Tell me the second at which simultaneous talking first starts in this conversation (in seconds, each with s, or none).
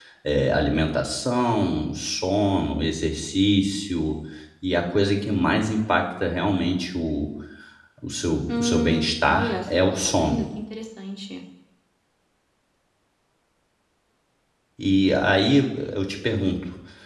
8.6 s